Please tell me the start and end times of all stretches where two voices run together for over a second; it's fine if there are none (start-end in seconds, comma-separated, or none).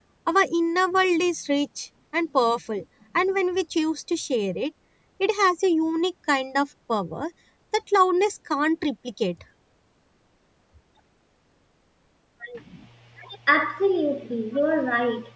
none